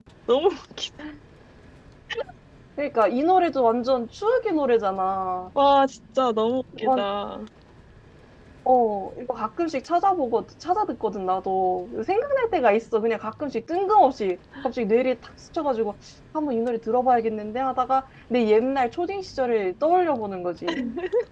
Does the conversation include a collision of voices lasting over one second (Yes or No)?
No